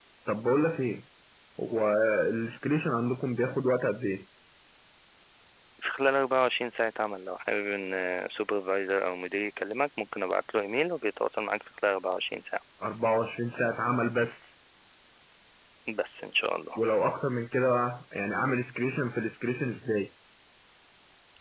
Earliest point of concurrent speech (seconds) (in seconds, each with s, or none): none